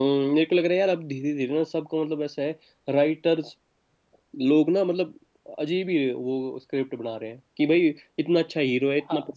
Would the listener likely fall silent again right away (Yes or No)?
Yes